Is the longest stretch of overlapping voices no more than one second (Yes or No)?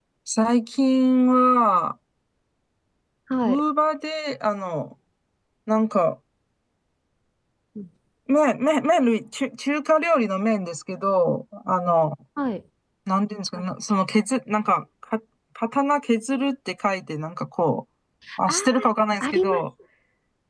Yes